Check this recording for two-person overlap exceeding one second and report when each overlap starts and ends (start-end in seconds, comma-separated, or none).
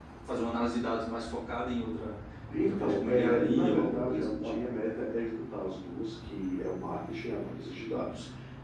2.6-4.5